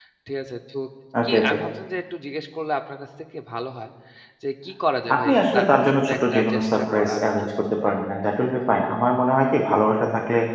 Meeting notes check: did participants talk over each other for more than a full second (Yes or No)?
Yes